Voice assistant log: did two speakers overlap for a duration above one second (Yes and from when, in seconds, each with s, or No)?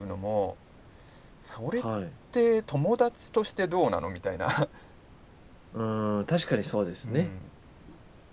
No